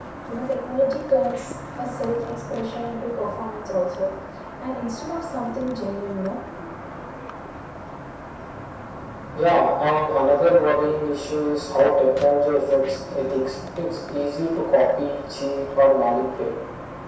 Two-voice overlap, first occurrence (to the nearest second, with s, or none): none